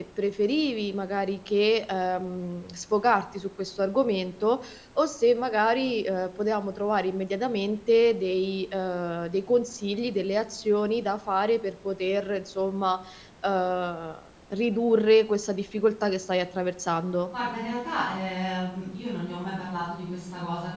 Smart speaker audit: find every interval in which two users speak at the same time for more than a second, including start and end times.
none

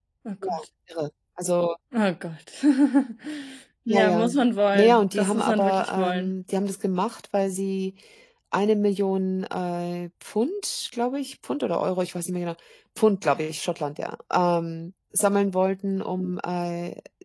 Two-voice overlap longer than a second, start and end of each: 4.7-6.3

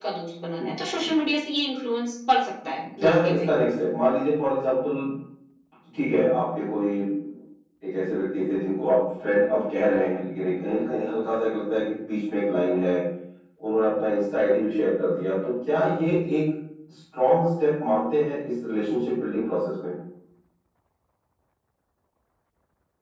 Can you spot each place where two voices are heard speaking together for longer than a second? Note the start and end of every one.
none

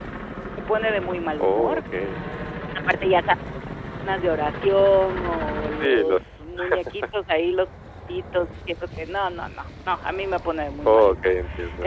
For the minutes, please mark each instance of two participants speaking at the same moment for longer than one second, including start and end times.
none

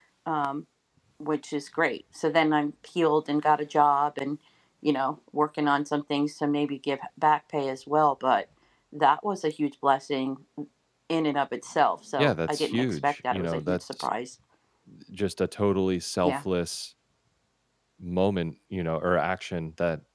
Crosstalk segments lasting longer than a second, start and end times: 12.2-14.1

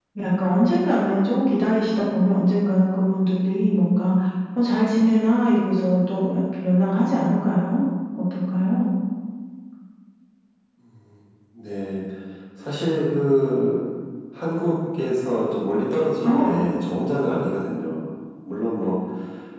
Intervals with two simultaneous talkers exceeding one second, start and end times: none

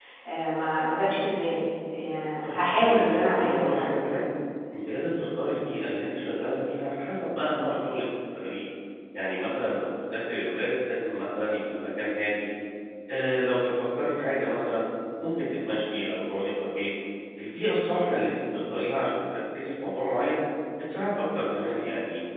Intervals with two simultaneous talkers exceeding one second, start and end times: 2.4-4.0

